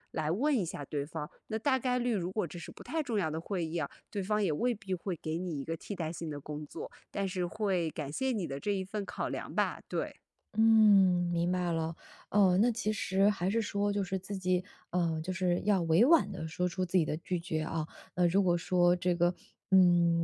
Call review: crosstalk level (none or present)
none